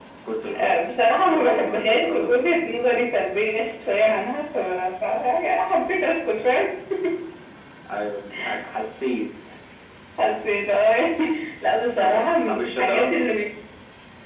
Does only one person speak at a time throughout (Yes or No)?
No